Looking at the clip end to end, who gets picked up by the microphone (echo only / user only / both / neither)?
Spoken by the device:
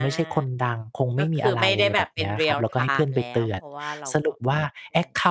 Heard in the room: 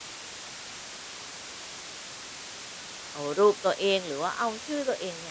user only